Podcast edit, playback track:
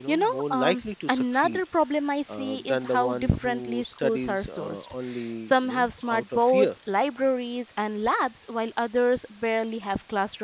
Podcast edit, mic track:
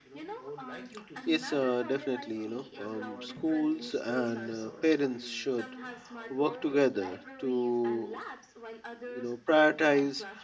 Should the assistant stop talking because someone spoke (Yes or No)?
Yes